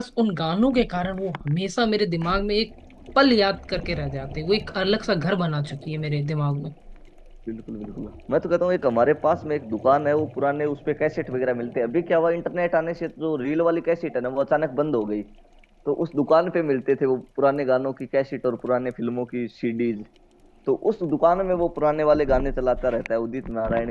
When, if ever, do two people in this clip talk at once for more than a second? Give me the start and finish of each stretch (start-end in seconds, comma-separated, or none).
none